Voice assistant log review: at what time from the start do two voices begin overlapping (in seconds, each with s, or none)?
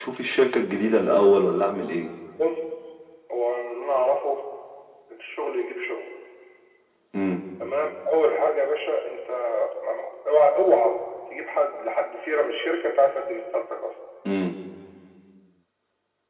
none